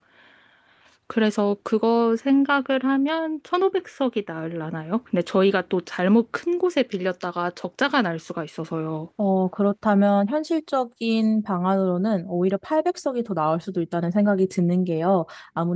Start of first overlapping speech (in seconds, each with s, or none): none